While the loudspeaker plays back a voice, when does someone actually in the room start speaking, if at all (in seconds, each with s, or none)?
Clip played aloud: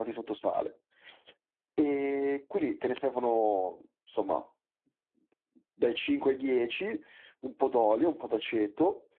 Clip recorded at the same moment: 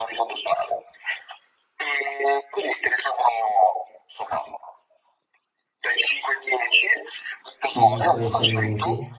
7.6 s